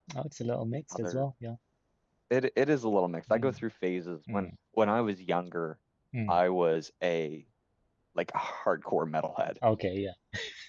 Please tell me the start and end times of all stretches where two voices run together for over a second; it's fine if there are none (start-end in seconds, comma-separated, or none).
none